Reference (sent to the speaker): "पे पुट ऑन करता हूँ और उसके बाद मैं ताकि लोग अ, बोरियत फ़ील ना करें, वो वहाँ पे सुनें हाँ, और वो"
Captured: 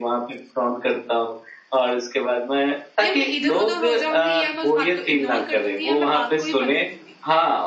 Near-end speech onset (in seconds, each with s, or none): 3.0 s